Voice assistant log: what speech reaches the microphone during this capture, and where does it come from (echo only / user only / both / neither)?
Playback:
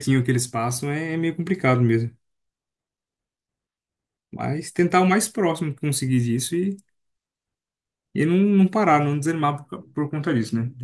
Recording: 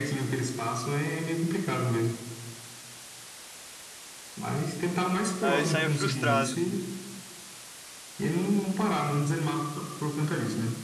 both